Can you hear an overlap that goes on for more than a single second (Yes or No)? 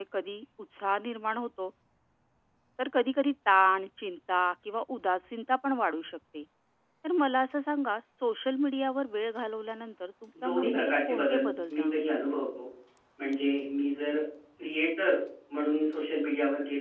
Yes